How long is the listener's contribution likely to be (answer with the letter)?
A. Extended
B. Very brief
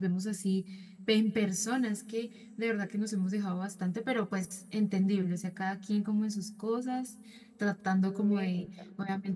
B